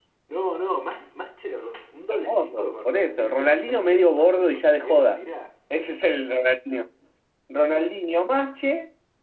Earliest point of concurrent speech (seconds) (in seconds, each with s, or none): 2.1 s